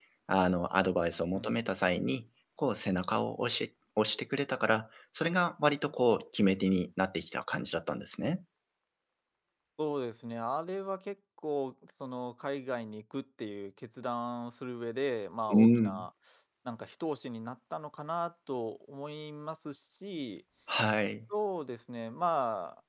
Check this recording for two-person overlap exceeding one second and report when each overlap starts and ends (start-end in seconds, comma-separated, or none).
none